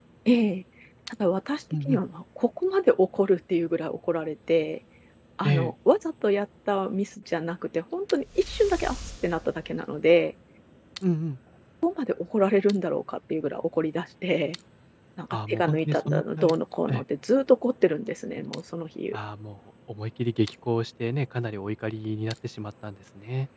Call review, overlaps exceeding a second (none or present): present